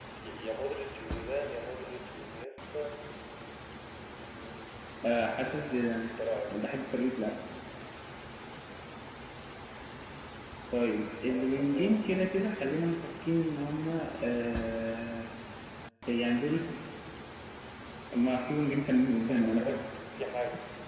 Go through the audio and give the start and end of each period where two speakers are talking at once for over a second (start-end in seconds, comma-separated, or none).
11.3-12.8